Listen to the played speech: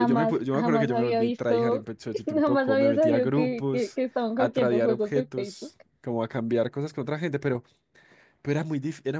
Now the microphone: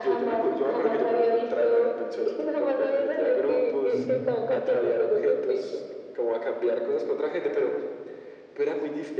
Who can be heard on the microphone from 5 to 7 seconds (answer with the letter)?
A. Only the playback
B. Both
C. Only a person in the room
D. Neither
A